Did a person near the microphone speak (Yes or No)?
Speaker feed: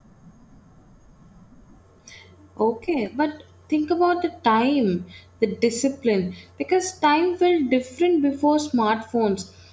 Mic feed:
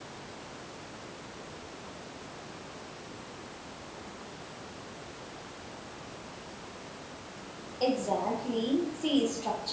Yes